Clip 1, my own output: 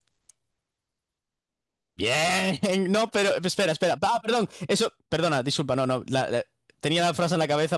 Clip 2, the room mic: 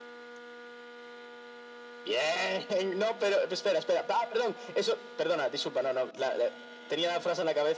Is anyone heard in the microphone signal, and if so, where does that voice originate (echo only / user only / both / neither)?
echo only